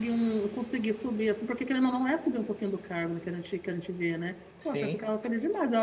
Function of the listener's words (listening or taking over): listening